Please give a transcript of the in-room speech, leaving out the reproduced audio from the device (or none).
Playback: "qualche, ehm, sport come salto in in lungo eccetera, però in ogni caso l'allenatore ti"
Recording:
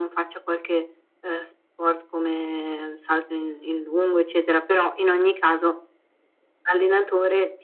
none